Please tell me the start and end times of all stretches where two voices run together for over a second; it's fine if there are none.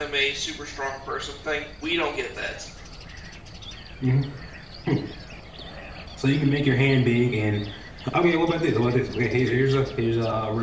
none

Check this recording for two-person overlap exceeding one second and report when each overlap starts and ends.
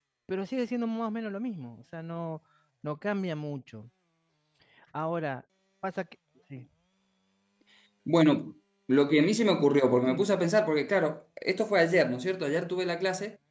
none

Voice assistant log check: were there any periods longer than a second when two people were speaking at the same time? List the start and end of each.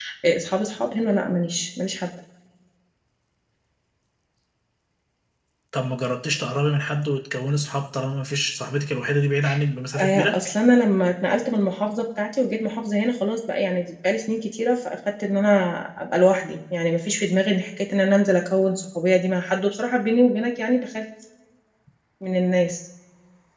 none

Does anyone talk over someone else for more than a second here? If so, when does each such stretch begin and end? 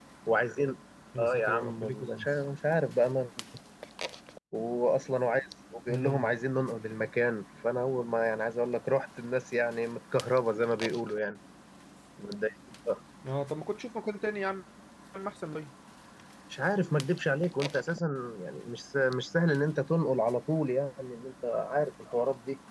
1.2-2.4

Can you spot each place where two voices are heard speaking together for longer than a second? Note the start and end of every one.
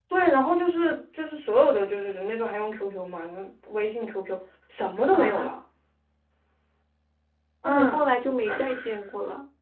none

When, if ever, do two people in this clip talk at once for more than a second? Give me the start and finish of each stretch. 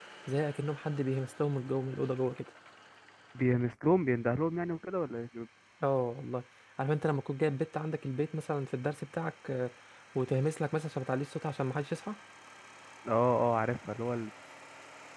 none

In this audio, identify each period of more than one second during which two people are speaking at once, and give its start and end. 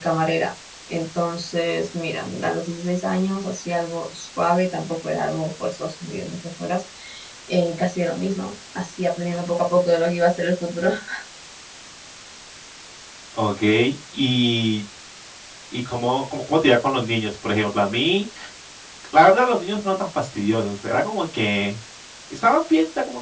none

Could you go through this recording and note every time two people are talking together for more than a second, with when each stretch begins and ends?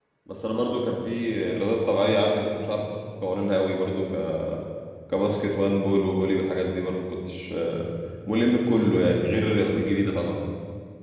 none

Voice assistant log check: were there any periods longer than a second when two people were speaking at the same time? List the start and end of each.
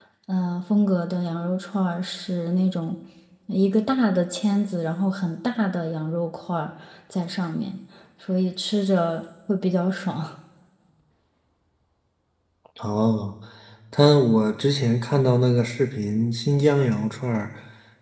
none

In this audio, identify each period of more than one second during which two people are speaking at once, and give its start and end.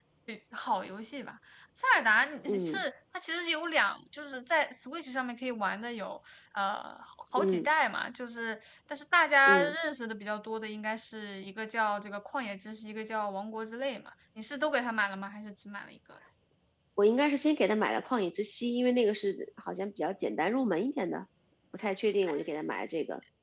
none

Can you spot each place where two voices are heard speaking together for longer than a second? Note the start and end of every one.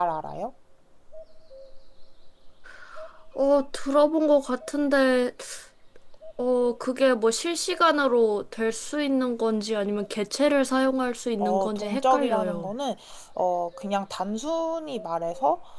11.4-12.7

